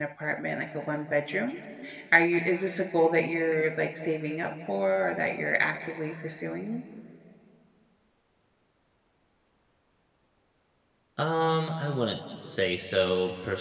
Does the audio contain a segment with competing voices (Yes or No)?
No